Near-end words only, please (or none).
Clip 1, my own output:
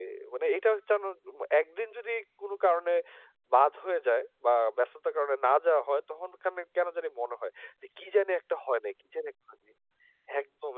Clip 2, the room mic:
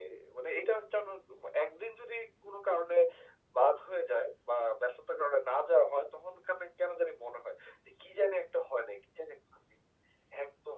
none